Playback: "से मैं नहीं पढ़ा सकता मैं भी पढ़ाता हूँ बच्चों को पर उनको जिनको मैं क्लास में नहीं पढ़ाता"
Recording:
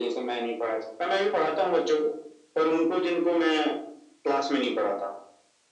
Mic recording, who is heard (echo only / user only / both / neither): echo only